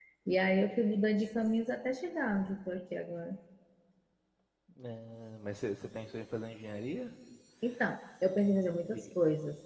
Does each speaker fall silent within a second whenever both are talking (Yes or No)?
Yes